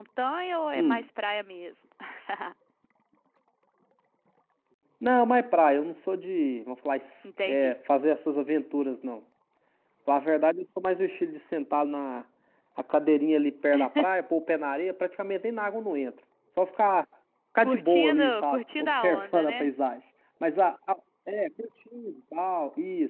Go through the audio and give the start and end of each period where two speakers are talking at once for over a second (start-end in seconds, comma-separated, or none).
17.6-19.7